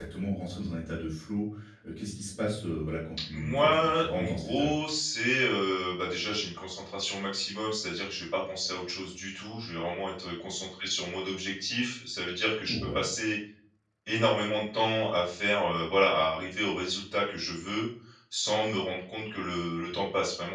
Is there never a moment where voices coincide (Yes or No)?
No